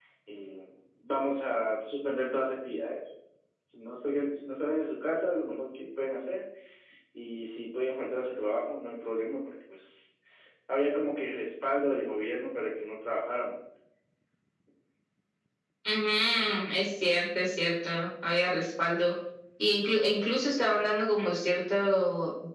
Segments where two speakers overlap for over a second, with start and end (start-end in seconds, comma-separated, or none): none